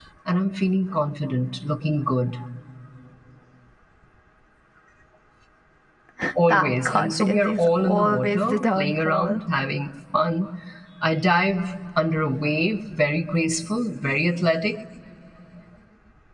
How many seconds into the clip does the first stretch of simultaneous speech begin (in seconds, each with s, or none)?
6.5 s